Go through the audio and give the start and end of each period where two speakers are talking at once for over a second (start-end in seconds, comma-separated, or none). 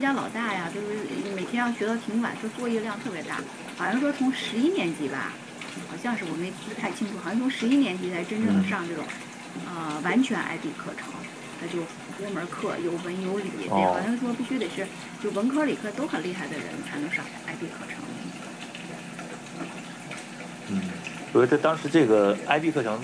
none